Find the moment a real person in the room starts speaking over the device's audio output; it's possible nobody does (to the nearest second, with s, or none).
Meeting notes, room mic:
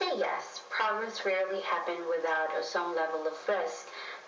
none